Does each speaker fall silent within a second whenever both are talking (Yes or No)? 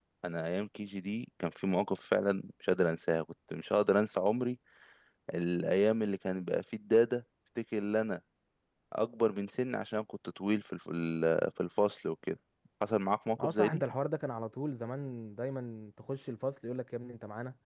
Yes